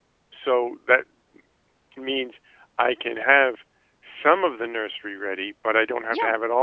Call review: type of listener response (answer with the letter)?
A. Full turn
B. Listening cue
A